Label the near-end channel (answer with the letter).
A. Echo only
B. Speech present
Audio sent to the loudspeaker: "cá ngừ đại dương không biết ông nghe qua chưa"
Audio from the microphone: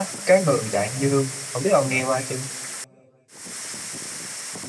A